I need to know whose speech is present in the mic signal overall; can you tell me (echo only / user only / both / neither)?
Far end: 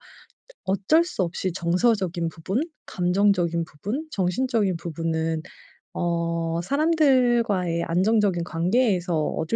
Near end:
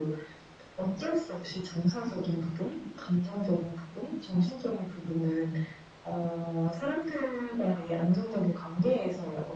echo only